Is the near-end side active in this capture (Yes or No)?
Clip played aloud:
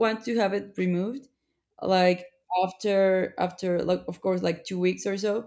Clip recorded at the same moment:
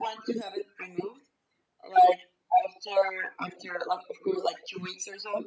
No